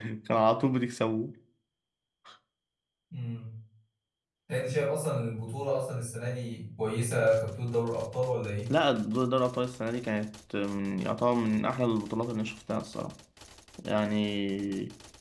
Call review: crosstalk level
none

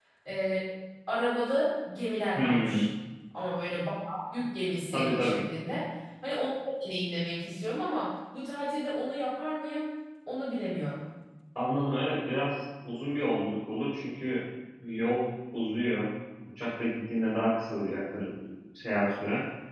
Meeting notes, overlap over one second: none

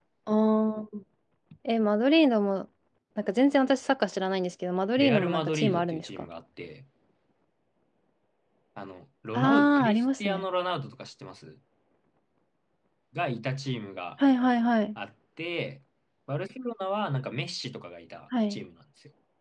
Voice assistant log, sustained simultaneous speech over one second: present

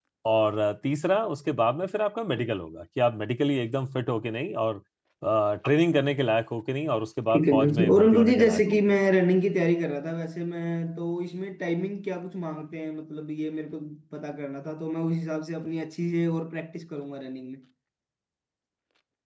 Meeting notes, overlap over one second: present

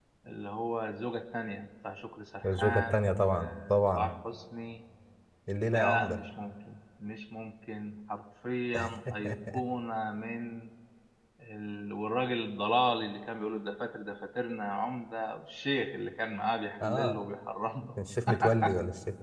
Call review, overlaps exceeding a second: present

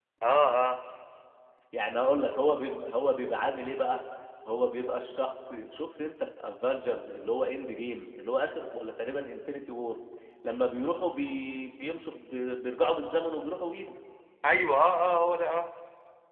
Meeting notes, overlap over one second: none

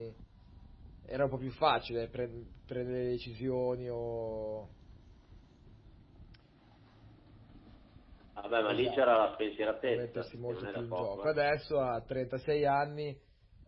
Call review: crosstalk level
present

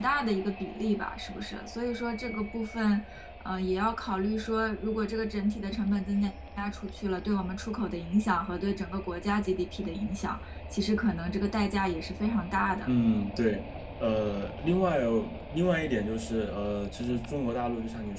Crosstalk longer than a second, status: none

